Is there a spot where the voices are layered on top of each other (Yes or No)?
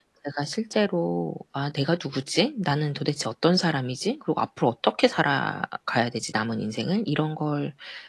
No